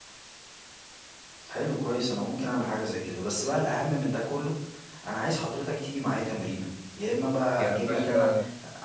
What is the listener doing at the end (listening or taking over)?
listening